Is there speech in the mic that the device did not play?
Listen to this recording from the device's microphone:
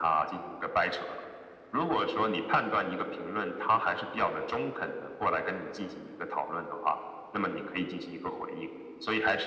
No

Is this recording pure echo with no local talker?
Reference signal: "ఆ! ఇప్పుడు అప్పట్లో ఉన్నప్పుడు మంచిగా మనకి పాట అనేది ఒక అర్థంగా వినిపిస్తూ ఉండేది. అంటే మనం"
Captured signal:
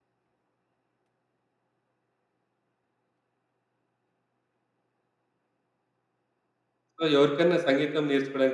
No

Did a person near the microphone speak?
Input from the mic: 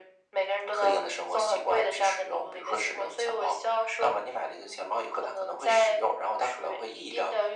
No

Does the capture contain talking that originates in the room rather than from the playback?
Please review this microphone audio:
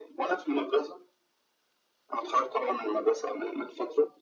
No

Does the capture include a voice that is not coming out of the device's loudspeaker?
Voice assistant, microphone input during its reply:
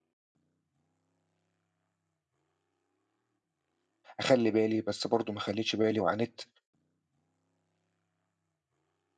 Yes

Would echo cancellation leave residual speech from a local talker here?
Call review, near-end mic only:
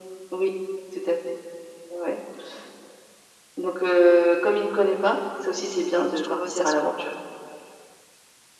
Yes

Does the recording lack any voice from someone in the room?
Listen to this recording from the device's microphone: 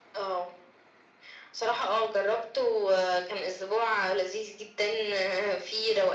Yes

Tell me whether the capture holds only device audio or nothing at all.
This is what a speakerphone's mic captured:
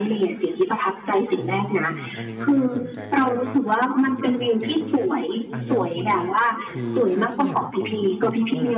No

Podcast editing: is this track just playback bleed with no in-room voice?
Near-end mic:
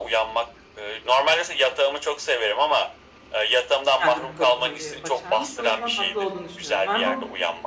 No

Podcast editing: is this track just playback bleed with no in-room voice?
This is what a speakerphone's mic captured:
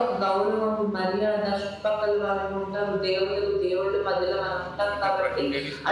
No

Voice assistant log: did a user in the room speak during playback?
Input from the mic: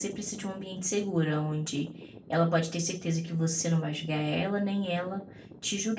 Yes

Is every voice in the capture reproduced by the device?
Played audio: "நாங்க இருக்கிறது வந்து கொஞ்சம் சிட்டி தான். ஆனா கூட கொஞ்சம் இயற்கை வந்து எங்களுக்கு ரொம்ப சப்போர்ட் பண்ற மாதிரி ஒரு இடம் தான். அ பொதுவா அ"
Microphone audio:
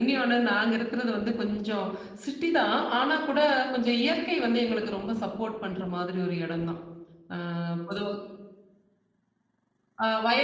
Yes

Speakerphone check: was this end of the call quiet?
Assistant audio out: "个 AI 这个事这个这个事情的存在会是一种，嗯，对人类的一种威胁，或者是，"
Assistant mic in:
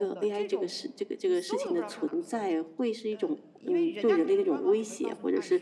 No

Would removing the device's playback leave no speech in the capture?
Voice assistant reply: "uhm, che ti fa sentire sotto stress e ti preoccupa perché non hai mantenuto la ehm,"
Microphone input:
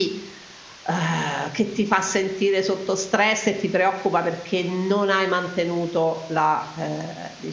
Yes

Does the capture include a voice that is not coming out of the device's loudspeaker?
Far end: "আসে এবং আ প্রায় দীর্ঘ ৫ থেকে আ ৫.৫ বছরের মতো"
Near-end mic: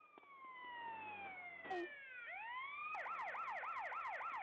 No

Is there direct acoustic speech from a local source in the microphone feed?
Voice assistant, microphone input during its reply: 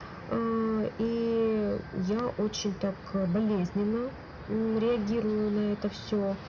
No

